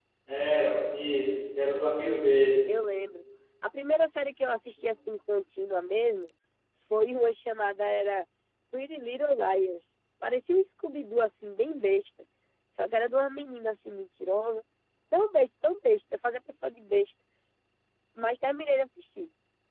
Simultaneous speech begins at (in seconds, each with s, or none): none